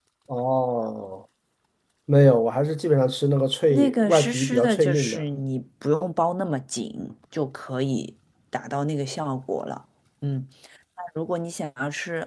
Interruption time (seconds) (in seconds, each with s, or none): 3.7 s